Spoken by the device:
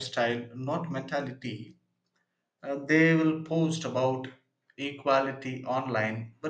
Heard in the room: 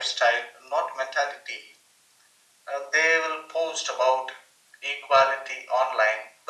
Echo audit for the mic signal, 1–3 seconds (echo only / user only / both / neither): echo only